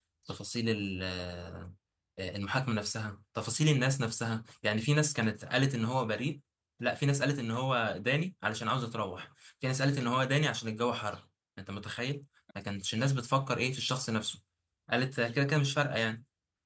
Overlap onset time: none

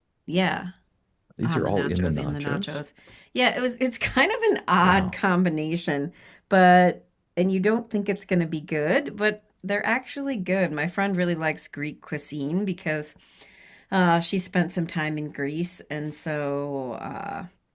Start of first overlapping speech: 1.4 s

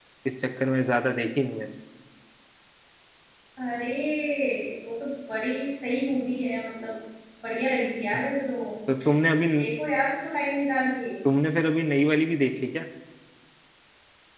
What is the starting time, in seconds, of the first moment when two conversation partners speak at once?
none

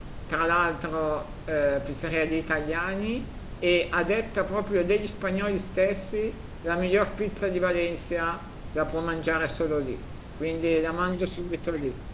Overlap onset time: none

